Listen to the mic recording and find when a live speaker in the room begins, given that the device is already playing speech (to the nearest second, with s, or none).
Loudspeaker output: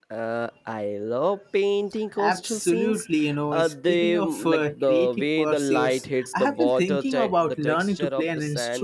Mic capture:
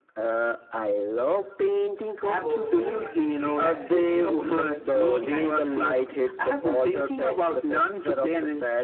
2 s